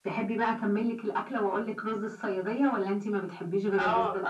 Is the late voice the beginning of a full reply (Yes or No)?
Yes